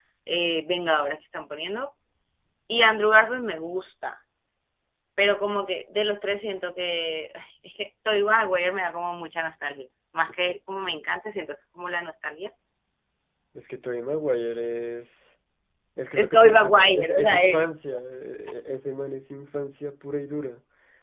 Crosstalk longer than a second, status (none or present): present